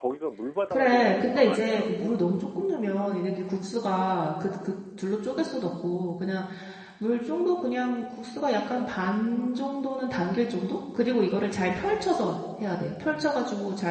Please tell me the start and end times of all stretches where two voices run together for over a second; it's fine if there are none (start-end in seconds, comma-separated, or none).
0.7-2.2